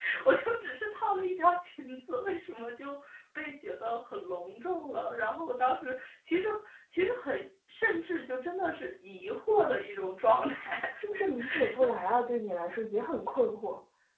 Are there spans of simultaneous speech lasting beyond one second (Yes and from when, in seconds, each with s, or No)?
No